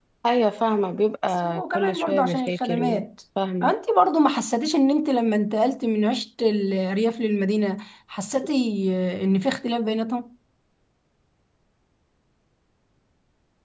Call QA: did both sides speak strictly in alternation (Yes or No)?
No